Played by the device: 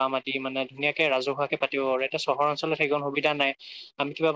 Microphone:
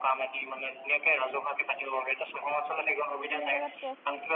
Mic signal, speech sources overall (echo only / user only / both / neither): both